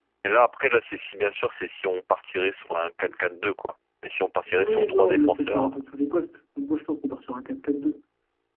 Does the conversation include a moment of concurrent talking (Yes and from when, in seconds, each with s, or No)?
Yes, from 4.5 s